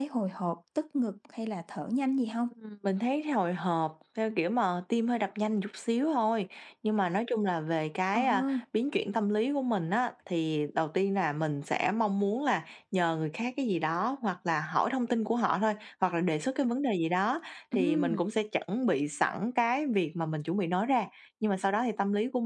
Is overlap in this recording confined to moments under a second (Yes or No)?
Yes